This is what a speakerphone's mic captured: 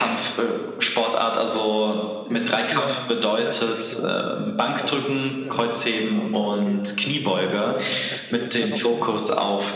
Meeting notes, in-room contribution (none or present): present